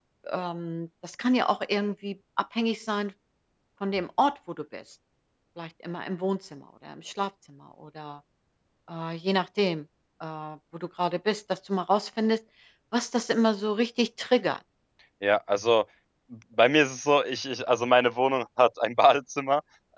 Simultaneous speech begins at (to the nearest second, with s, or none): none